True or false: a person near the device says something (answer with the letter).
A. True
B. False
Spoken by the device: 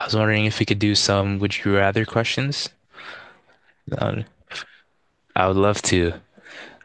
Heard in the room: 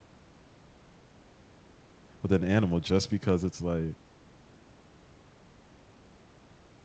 A